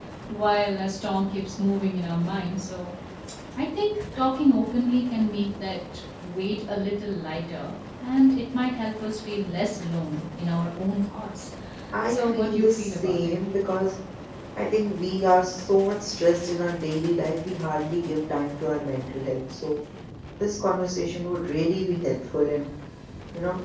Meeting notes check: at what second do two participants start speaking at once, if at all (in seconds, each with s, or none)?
12.1 s